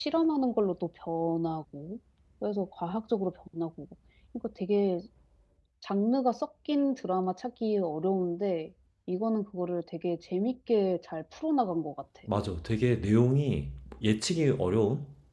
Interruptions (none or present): none